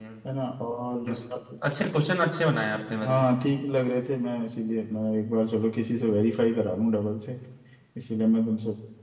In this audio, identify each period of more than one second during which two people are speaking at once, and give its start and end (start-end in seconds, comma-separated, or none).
none